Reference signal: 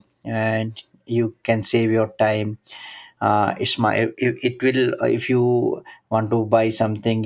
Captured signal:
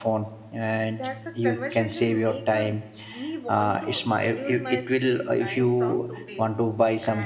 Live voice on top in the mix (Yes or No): No